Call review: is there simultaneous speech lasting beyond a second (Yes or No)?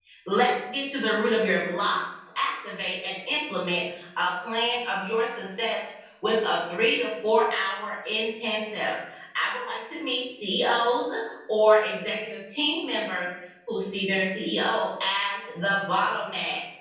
No